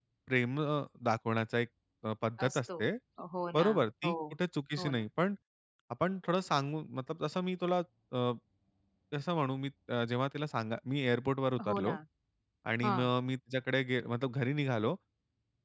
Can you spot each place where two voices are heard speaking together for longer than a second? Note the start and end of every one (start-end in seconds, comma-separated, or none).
none